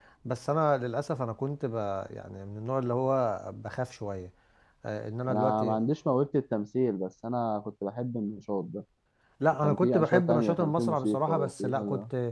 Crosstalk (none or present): present